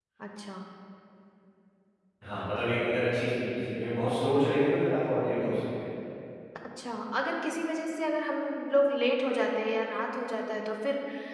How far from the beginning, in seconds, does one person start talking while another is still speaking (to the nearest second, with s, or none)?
none